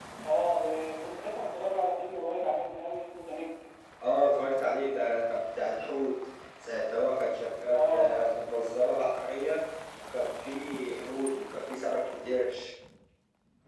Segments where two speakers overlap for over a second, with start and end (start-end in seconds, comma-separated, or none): none